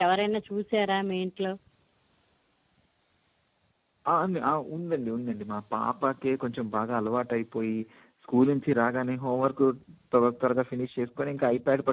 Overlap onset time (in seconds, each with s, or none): none